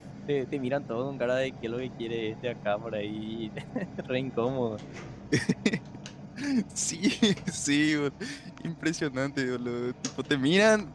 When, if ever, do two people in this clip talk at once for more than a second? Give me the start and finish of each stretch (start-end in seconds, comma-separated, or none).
none